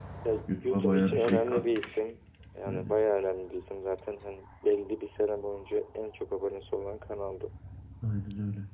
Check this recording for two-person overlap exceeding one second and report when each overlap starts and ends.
0.6-2.0

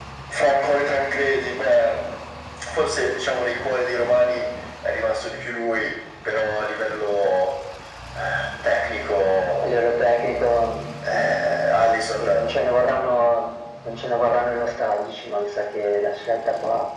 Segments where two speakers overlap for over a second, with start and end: none

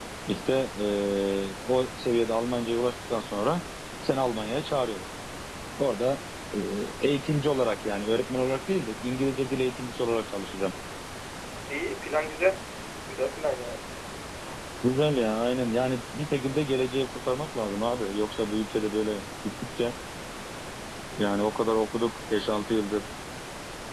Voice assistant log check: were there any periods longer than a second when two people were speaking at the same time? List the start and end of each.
none

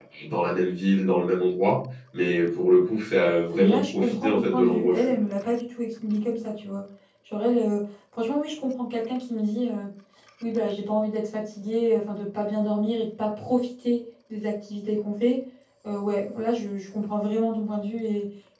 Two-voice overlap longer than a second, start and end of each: 3.5-5.1

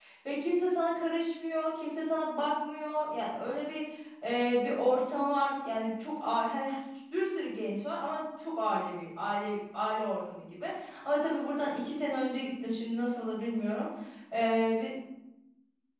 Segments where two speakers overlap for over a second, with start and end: none

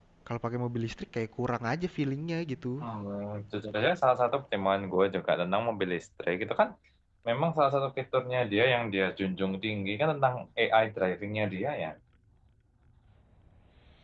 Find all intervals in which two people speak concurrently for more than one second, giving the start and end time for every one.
none

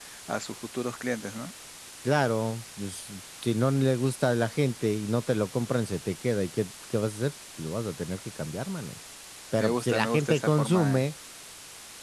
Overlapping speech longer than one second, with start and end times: 9.6-11.1

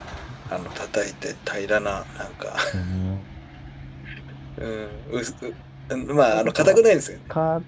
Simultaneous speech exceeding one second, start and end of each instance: none

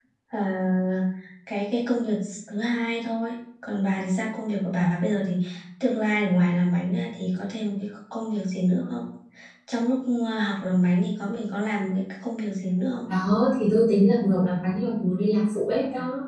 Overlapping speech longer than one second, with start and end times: none

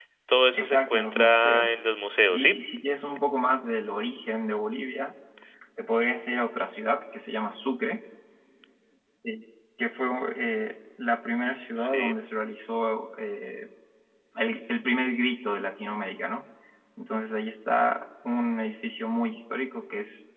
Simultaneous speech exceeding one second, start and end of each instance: 0.5-1.8

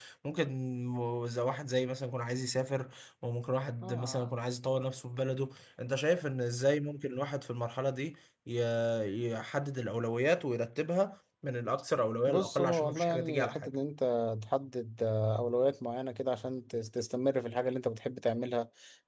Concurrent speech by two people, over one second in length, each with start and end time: 12.3-13.8

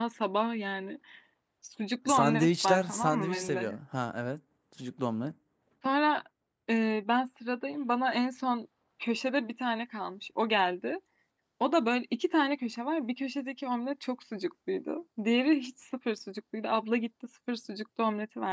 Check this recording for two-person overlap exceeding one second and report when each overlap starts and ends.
2.1-3.8

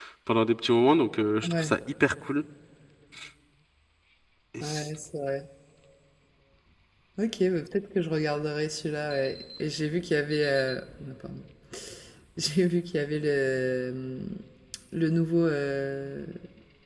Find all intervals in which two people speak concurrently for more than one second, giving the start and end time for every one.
none

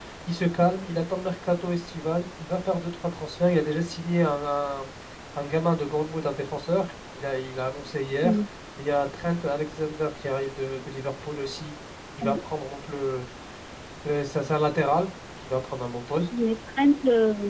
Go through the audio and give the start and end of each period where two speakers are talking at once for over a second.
none

